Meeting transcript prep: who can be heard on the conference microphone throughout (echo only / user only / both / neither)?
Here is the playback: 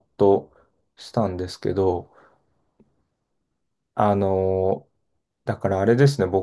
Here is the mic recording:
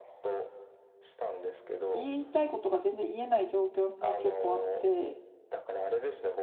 both